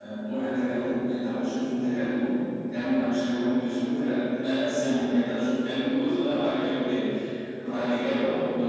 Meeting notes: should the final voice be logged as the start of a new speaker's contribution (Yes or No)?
No